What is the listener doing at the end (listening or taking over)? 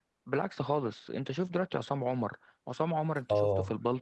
taking over